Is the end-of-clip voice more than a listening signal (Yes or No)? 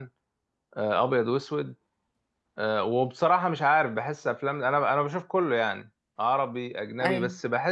No